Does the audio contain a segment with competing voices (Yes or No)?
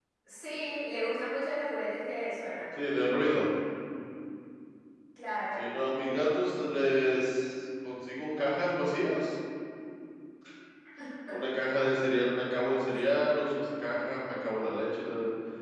No